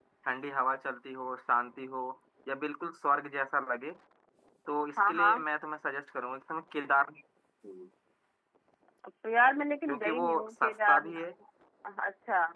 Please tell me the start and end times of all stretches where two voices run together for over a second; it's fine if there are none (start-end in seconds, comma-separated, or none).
9.9-11.1